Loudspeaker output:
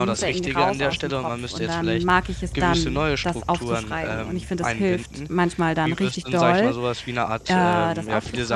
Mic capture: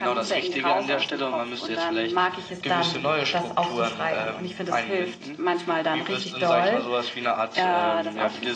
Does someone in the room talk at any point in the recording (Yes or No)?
No